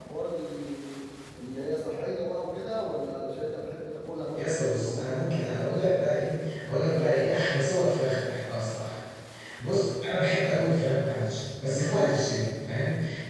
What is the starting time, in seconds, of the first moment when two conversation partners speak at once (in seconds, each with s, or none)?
4.4 s